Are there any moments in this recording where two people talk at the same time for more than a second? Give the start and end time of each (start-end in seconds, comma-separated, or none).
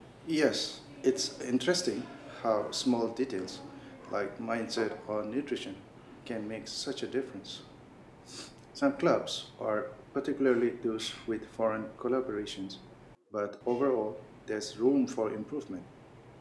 none